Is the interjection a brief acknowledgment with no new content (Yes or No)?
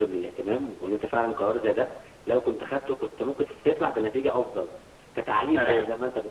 Yes